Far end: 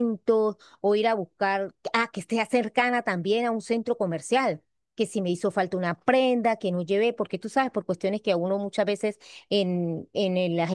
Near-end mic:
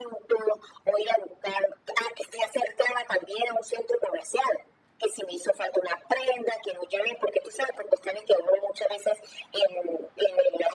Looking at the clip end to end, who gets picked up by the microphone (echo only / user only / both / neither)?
echo only